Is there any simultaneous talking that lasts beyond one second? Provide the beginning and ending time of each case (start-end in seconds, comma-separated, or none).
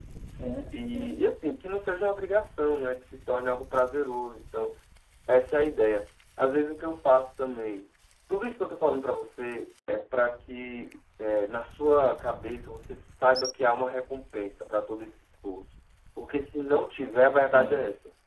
none